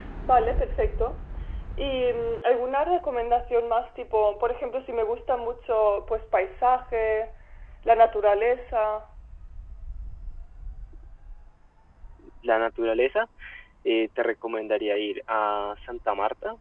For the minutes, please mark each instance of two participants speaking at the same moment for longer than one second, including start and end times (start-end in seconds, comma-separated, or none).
none